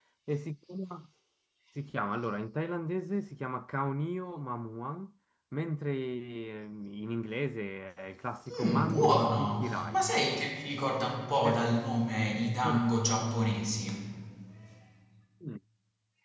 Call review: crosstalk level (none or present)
present